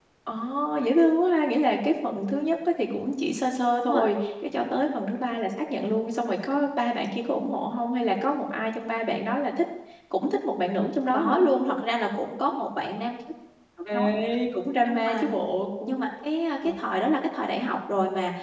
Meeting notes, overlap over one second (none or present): none